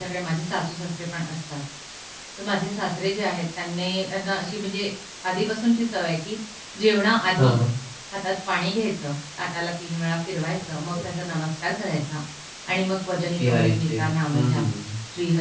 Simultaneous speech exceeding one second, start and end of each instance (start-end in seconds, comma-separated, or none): 13.2-14.6